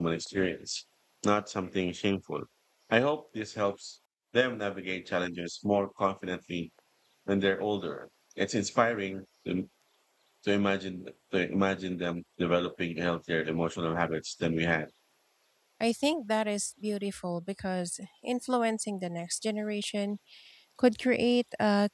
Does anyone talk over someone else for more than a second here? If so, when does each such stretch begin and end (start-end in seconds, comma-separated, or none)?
none